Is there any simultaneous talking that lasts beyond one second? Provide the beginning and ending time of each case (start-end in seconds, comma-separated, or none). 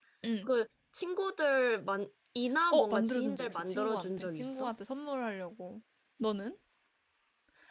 2.7-4.7